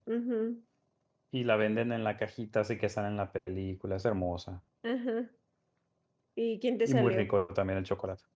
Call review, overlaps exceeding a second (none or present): none